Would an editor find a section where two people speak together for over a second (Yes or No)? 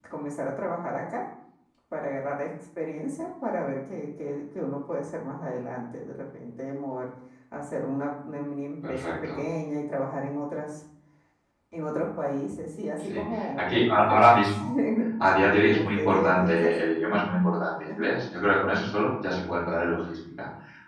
Yes